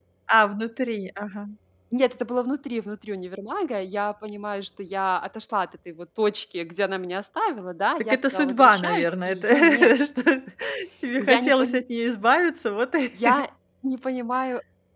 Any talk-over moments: Yes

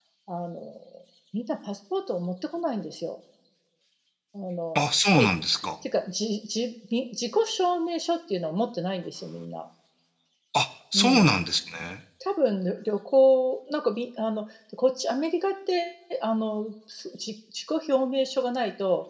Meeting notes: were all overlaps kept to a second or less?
Yes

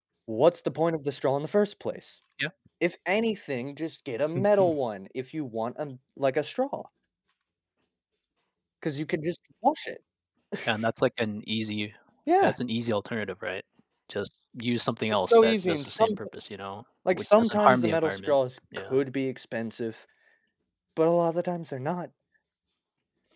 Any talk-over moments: Yes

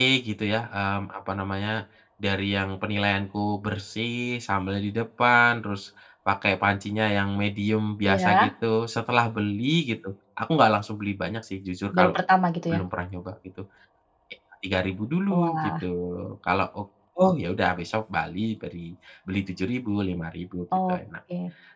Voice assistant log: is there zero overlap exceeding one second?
Yes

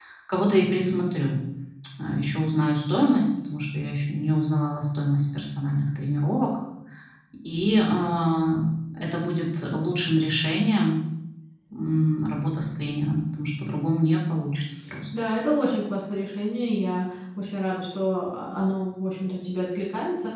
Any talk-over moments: No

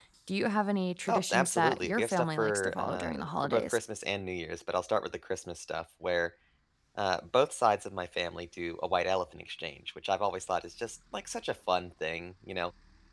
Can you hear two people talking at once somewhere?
Yes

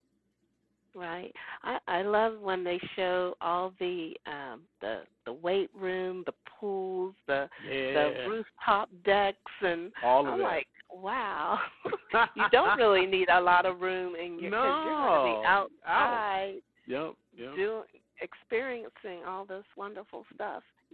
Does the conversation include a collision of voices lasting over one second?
Yes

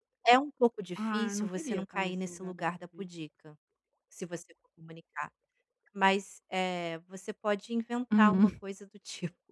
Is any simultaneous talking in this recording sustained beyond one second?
Yes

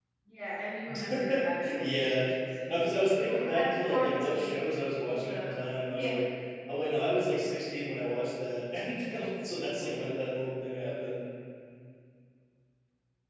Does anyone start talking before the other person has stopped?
Yes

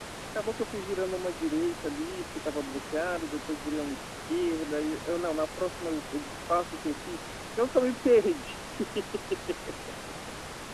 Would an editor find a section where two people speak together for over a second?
No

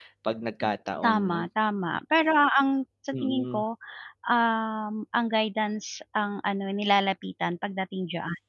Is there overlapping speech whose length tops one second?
No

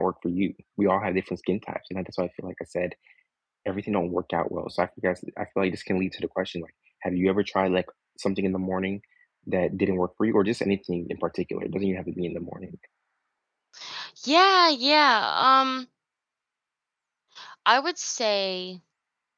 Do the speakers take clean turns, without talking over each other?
Yes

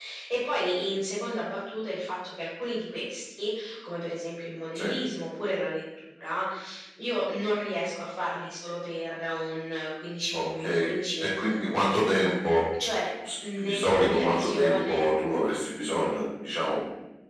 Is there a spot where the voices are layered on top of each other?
Yes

